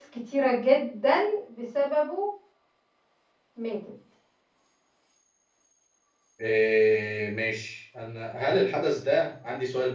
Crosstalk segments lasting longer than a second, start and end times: none

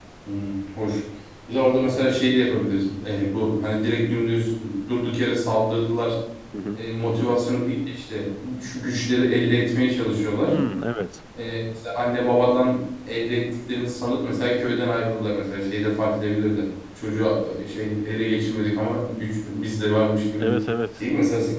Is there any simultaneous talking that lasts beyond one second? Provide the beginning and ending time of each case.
none

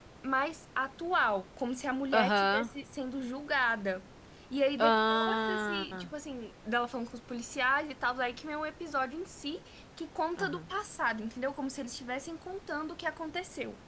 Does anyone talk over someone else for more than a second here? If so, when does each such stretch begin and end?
4.8-6.1

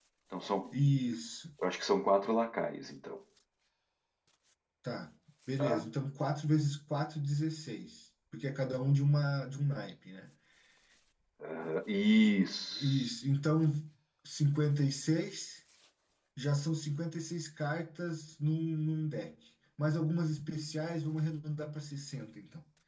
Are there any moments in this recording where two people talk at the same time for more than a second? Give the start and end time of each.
none

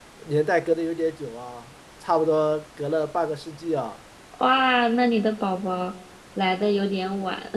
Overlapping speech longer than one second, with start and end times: none

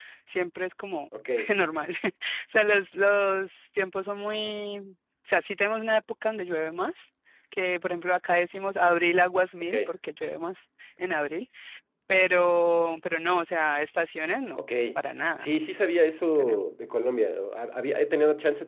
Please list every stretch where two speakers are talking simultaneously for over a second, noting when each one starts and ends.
none

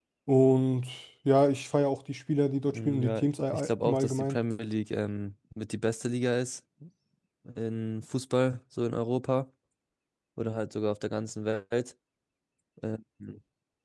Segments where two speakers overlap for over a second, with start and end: 2.7-4.4

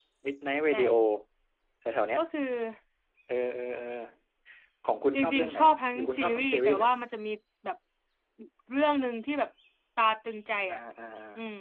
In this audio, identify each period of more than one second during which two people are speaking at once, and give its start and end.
5.1-6.9

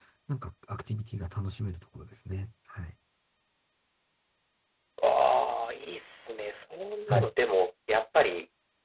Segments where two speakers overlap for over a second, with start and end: none

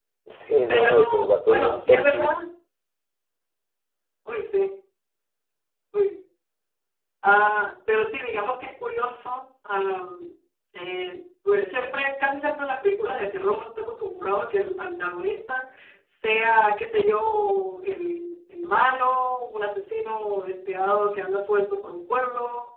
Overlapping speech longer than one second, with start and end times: 0.7-2.3

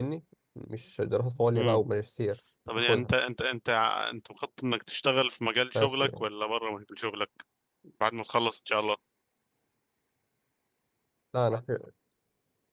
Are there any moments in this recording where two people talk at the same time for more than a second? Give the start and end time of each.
none

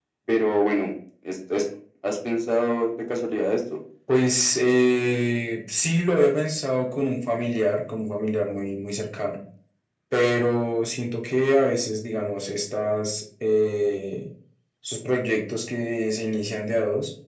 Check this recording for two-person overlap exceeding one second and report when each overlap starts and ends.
none

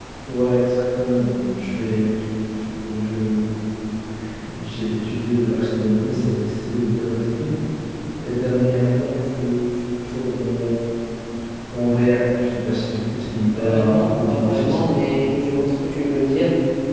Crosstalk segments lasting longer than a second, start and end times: 13.6-14.9

